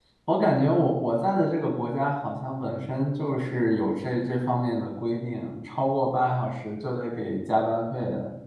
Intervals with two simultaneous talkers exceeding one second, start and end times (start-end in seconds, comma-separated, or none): none